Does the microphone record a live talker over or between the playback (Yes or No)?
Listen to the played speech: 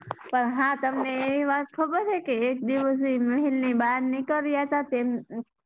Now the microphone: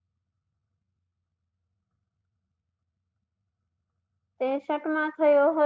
Yes